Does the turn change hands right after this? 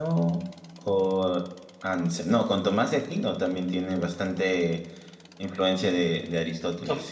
Yes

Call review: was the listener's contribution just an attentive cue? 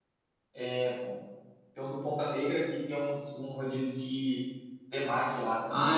No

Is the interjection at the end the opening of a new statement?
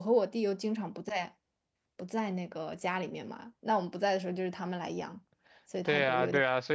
Yes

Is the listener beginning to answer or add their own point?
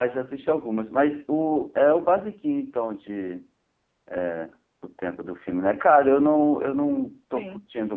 No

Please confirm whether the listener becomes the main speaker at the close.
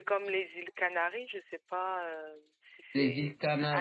Yes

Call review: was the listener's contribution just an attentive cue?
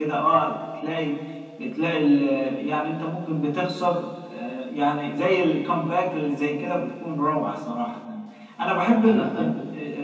Yes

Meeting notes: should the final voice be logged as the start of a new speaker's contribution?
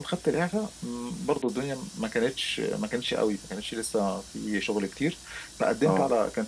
No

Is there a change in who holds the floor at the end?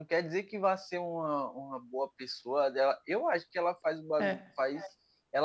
No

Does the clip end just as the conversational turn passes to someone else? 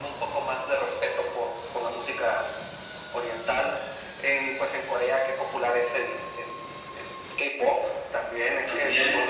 Yes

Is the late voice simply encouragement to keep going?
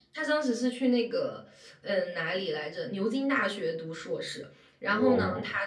Yes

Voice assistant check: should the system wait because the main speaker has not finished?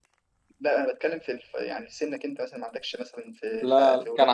No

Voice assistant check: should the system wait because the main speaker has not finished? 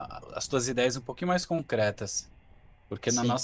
Yes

